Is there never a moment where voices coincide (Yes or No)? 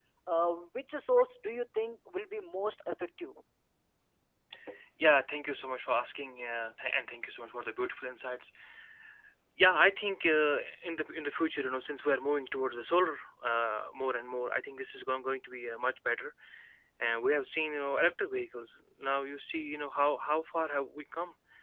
Yes